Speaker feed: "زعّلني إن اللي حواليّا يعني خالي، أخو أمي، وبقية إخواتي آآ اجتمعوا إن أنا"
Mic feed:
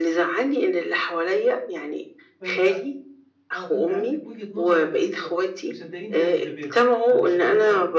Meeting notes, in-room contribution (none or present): present